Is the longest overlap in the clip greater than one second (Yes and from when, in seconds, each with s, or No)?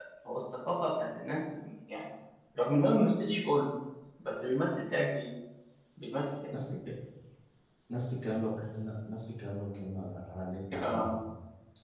No